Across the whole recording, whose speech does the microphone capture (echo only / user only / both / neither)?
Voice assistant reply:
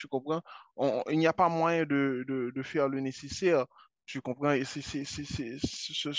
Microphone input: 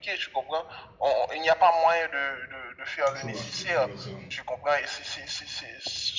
both